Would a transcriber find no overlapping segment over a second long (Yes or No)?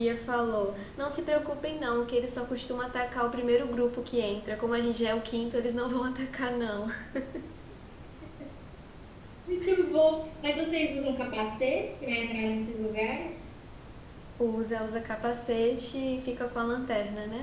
Yes